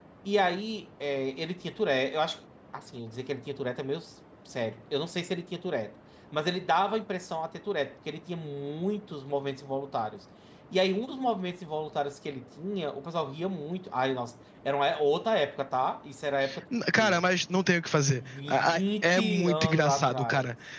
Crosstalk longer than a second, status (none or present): present